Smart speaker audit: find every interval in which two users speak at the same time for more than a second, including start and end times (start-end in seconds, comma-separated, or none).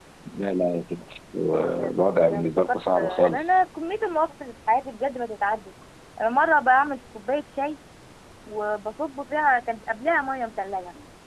2.3-3.6